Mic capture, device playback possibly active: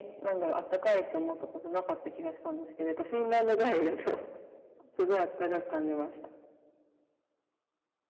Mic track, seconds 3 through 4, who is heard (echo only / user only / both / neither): echo only